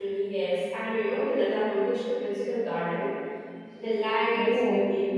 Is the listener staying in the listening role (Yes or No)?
Yes